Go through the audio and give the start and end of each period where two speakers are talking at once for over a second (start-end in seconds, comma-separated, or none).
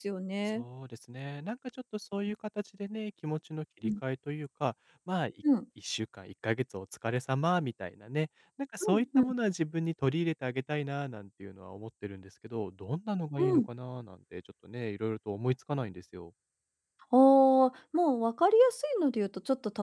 none